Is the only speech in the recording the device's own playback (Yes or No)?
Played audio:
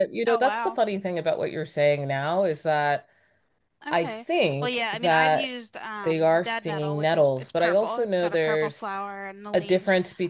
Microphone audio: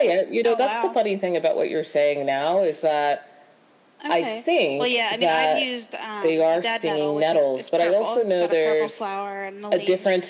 Yes